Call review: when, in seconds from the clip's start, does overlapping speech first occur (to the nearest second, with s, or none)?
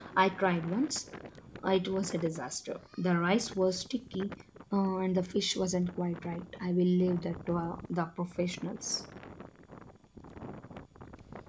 none